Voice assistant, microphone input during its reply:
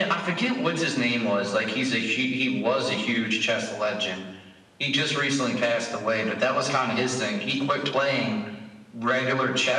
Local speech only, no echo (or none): none